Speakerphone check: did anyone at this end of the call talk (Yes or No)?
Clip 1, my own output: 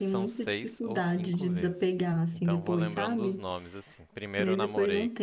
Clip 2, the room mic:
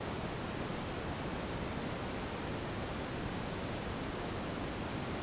No